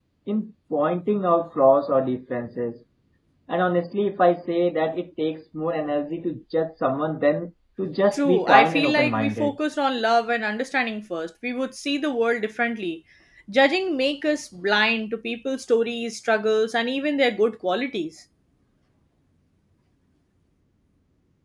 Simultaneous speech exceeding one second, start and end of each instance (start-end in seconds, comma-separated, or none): 8.1-9.5